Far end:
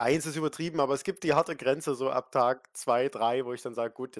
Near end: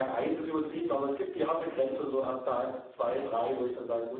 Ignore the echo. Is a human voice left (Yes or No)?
No